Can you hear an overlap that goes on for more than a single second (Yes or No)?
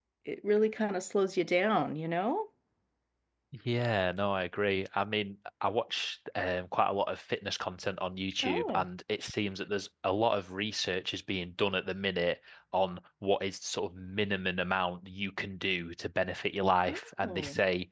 No